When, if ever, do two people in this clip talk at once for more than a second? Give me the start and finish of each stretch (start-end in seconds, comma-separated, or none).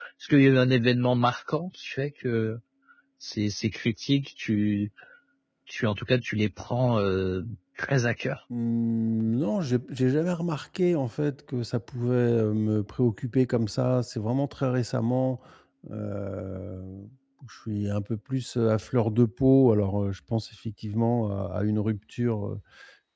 none